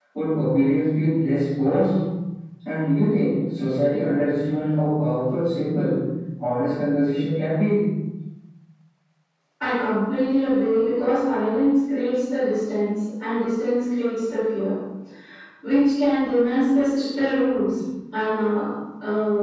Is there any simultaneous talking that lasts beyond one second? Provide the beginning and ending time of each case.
none

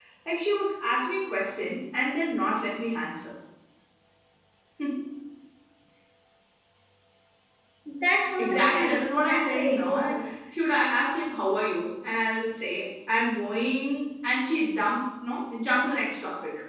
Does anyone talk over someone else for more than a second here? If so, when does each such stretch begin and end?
8.4-10.3

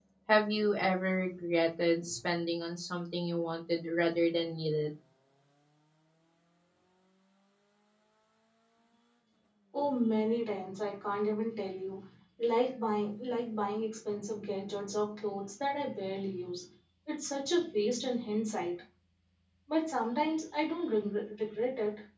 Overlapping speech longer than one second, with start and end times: none

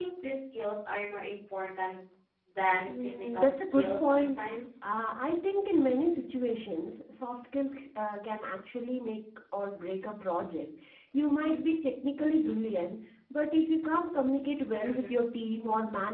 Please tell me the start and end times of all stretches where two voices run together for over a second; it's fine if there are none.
2.9-4.4

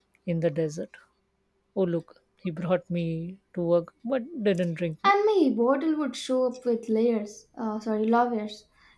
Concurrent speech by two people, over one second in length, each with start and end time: none

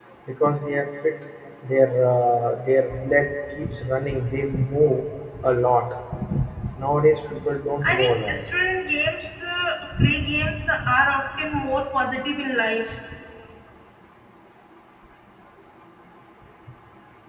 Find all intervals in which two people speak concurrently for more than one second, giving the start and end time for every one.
none

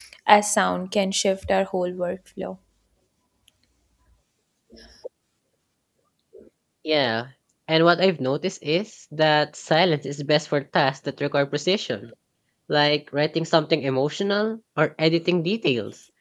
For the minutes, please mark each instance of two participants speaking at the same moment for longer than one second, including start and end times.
none

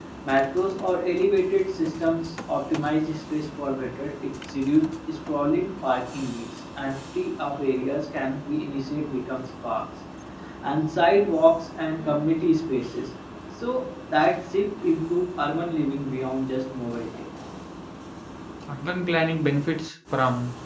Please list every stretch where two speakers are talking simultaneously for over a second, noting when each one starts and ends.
none

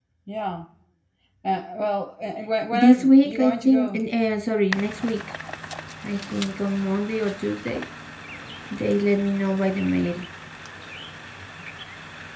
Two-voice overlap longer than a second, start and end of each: 2.7-4.0

